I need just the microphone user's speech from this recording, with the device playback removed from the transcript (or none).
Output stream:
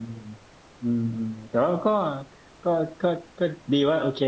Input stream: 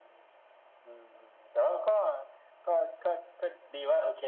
none